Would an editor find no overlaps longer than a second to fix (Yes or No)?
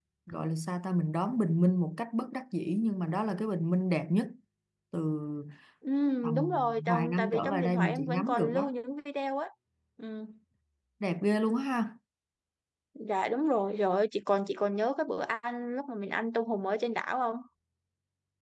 No